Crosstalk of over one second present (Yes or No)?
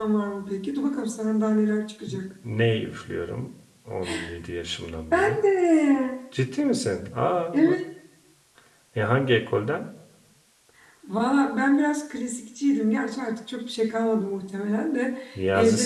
No